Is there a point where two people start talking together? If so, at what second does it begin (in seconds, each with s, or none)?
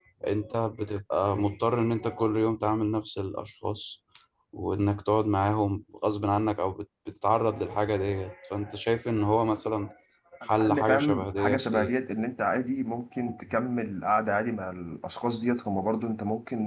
10.6 s